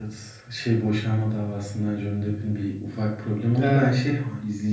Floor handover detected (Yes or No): No